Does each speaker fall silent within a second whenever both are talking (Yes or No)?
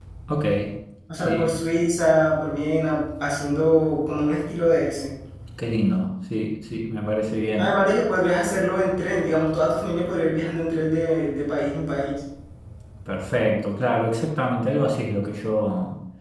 Yes